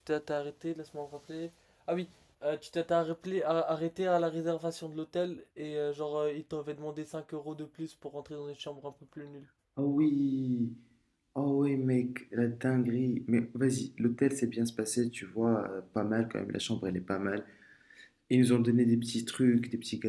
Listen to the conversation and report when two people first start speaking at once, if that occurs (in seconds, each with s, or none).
none